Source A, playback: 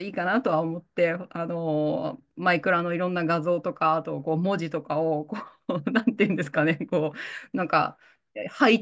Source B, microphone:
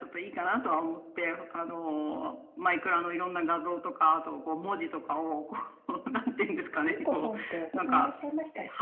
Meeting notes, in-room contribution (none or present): present